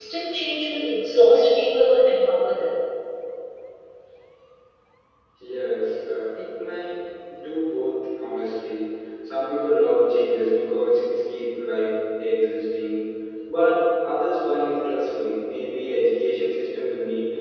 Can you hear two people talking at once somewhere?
No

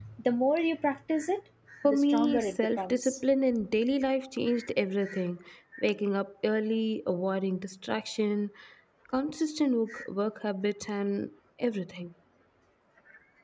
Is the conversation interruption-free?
No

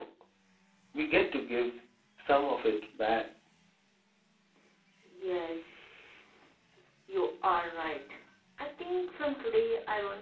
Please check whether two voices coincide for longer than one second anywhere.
No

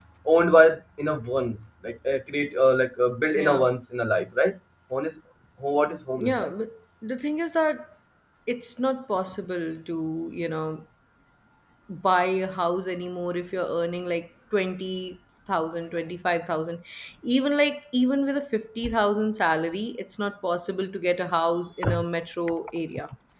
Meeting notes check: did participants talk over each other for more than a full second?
No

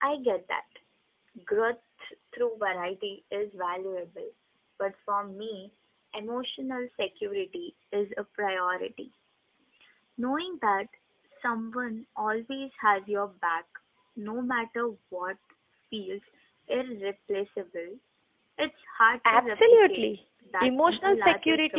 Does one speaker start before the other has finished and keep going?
Yes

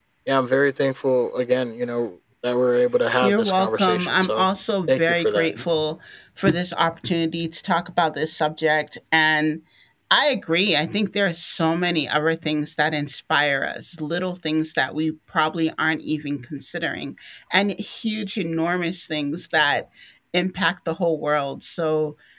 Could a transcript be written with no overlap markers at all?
No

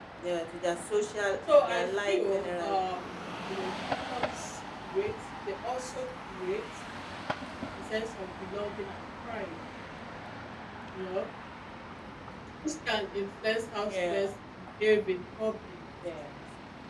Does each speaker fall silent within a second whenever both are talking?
No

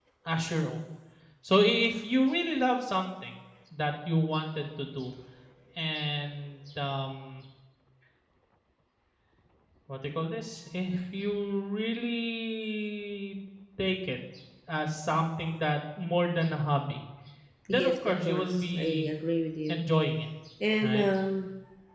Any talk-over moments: Yes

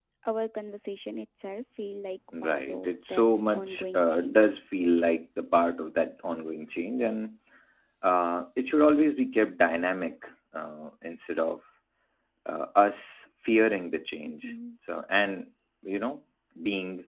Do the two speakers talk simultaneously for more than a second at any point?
Yes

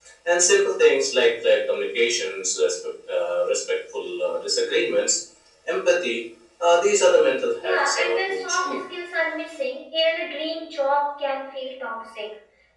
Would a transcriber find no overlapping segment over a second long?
No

